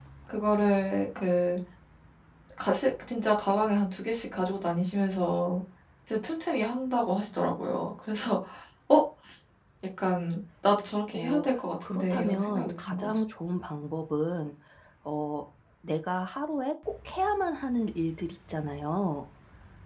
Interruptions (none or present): present